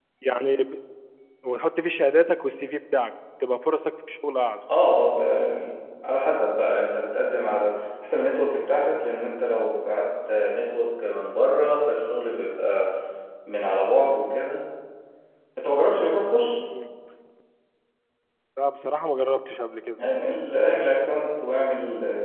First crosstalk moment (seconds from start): none

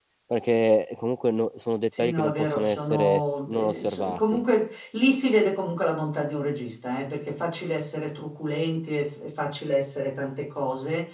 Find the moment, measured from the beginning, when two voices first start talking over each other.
1.9 s

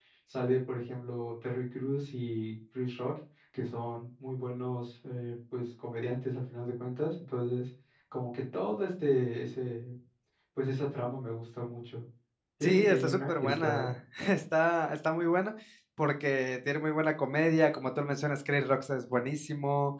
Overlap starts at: 12.6 s

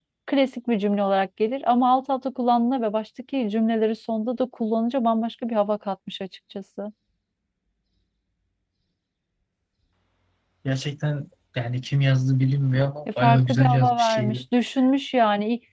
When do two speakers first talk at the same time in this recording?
13.2 s

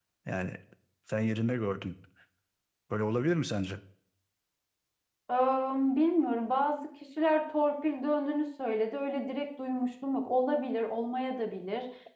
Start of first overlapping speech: none

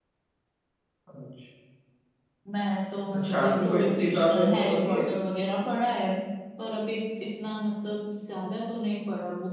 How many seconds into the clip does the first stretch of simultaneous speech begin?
3.1 s

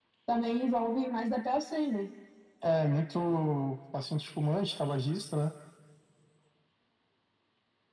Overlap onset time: none

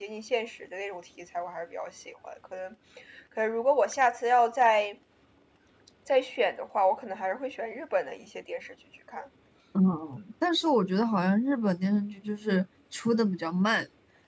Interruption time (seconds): none

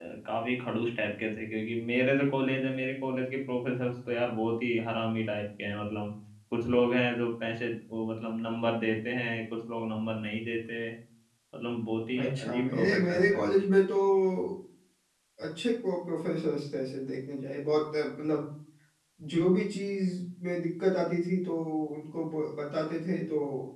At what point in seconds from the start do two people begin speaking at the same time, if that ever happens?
12.2 s

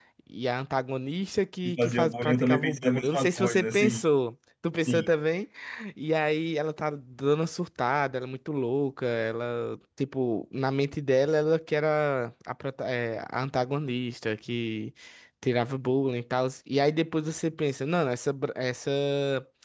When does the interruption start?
1.6 s

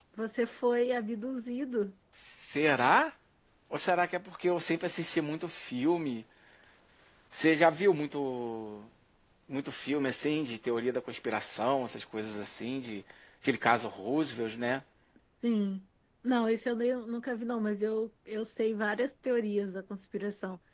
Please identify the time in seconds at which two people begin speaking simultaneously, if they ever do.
none

